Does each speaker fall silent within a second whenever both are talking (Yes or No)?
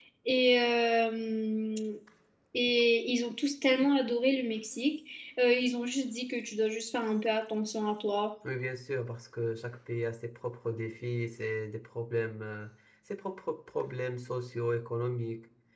Yes